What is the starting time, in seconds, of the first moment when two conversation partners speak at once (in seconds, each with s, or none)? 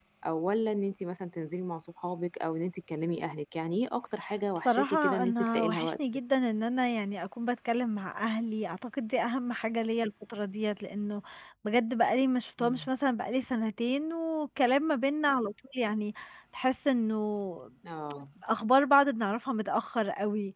4.7 s